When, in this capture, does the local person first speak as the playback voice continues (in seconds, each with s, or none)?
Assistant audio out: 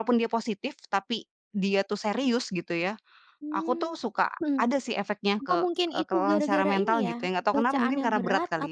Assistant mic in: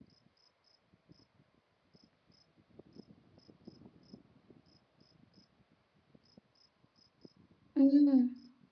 7.8 s